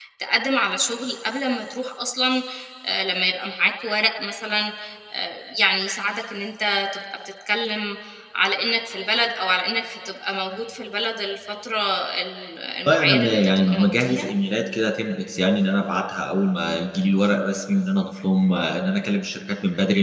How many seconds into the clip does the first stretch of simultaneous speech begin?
12.9 s

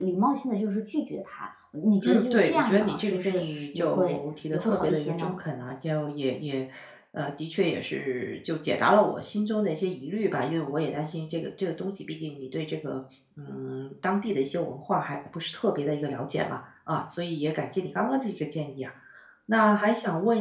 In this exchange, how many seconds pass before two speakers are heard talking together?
2.0 s

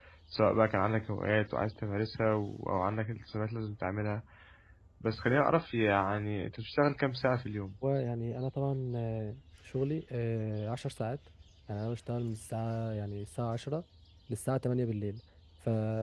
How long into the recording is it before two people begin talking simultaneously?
none

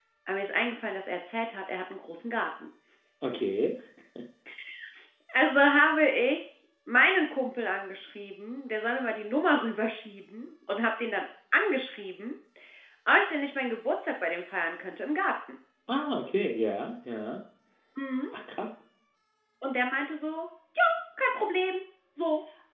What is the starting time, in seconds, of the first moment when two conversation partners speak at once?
none

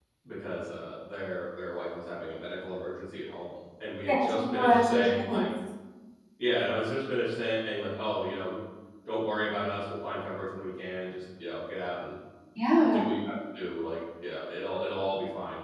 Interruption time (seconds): 4.1 s

